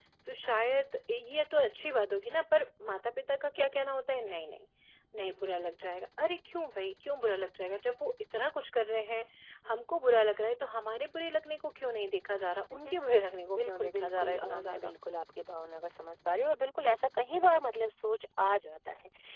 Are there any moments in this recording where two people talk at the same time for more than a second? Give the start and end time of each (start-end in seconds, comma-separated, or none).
13.6-14.9